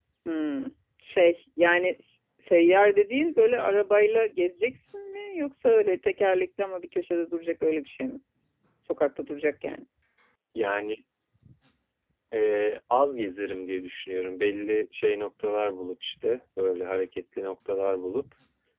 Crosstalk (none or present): none